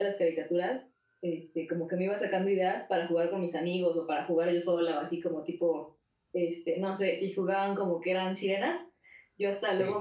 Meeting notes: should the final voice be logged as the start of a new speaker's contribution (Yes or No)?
No